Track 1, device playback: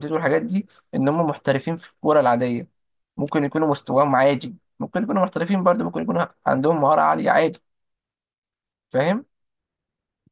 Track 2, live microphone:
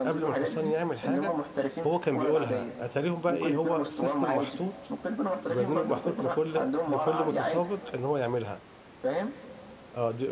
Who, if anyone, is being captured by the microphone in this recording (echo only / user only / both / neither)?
both